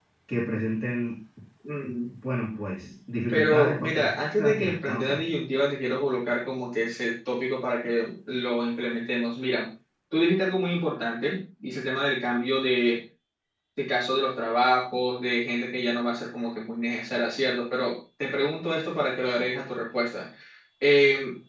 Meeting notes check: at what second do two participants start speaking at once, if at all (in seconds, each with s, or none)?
3.3 s